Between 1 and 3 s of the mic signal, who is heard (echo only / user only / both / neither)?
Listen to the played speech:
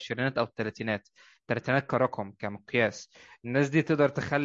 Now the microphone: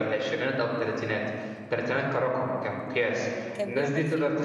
echo only